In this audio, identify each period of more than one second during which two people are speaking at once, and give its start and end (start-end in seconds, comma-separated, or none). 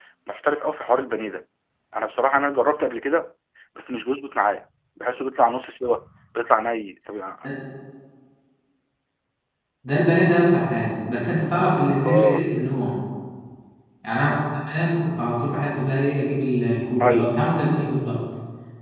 none